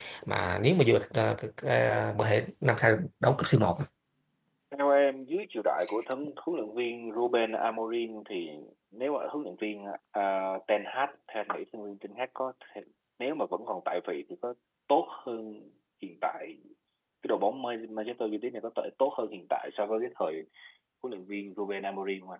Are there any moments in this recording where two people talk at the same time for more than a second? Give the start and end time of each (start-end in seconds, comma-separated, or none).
none